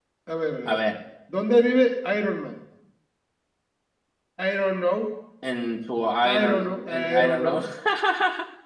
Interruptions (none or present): present